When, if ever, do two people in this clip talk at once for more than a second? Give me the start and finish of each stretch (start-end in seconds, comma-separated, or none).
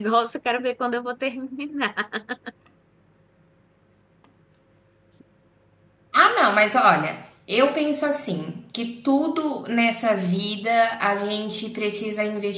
none